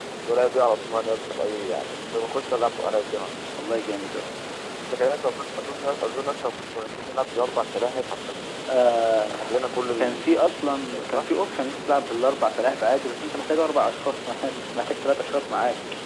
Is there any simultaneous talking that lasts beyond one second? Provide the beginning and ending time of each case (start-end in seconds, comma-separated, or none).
none